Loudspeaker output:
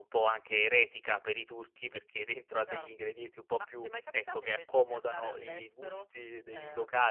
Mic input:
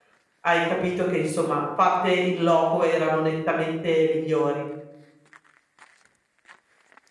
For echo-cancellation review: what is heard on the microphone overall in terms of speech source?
user only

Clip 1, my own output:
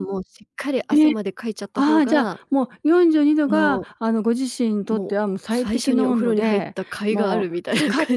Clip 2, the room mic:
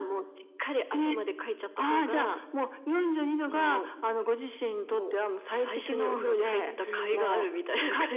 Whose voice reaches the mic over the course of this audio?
both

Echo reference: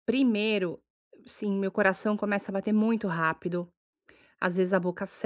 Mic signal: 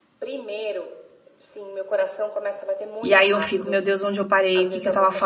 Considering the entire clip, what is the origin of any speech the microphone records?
both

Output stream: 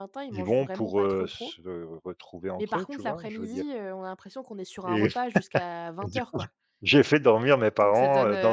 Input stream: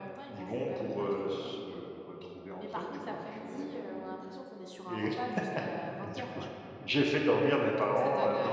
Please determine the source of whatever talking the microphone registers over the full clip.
echo only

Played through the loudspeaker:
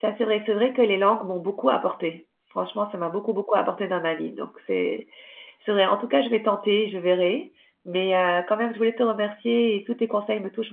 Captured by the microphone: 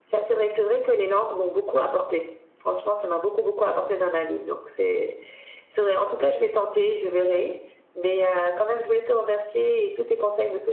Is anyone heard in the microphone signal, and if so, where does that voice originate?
echo only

